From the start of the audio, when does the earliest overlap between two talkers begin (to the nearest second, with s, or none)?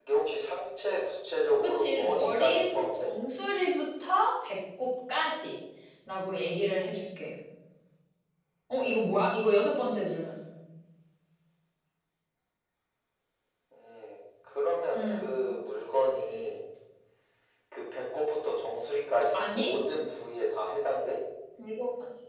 2 s